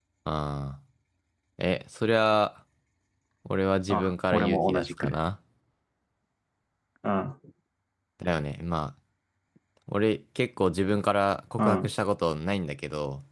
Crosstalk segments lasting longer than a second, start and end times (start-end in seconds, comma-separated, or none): 3.9-5.2